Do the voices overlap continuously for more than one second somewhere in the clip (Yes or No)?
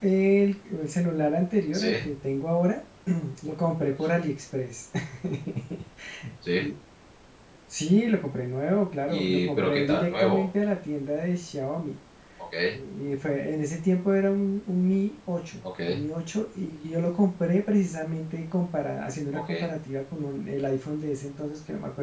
Yes